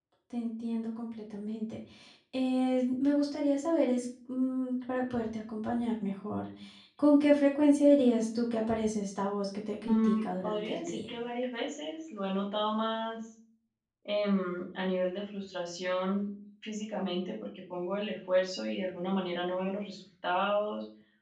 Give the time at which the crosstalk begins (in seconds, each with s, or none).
9.9 s